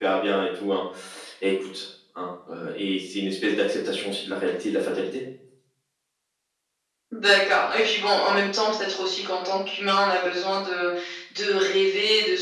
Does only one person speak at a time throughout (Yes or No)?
Yes